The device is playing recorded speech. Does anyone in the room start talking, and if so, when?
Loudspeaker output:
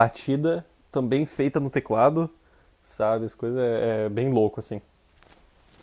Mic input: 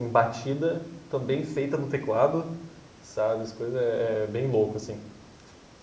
none

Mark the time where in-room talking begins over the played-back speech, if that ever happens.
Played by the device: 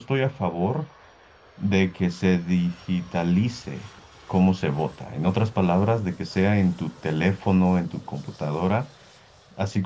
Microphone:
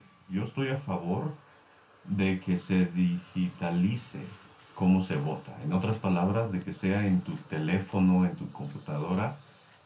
none

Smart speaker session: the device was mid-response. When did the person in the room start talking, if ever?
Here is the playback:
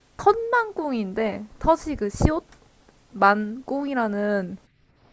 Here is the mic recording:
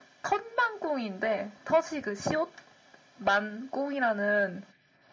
none

